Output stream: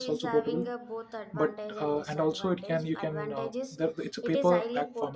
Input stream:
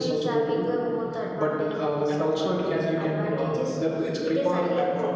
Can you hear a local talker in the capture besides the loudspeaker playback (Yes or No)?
No